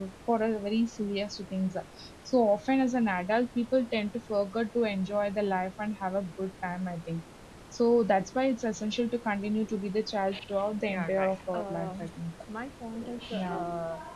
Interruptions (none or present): present